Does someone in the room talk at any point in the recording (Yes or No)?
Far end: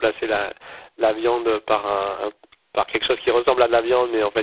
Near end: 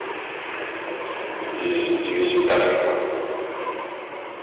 Yes